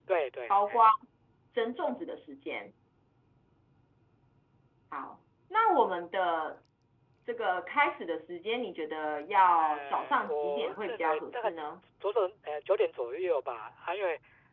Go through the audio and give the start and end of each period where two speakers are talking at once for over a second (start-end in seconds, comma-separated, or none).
9.5-11.5